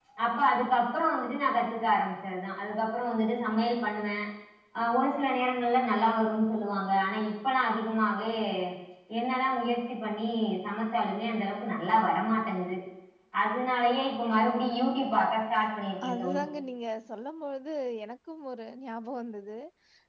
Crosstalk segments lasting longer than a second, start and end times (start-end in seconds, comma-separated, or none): none